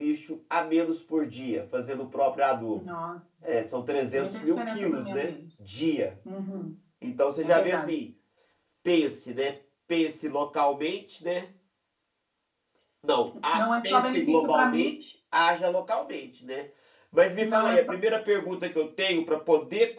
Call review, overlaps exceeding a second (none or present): present